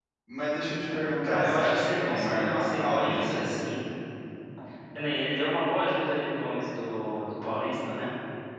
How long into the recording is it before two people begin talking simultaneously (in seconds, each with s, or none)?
1.2 s